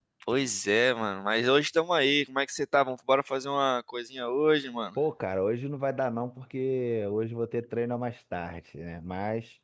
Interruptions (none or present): none